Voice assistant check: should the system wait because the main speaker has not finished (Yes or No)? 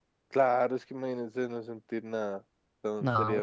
Yes